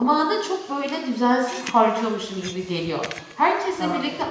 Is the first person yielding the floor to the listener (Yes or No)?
No